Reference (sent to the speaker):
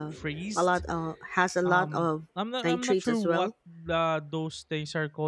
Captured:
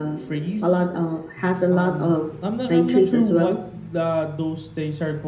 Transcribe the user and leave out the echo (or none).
none